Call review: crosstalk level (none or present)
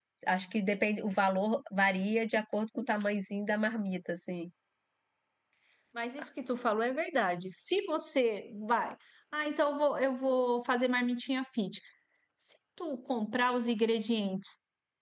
none